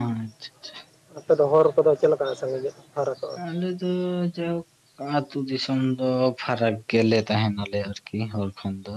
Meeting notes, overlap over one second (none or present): none